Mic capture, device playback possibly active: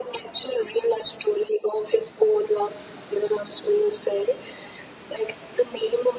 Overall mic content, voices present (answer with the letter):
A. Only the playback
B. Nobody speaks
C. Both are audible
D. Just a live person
A